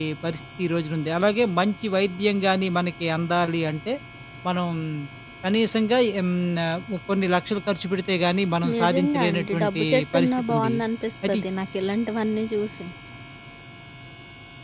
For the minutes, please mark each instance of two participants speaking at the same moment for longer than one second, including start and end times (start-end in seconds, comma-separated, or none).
8.7-10.7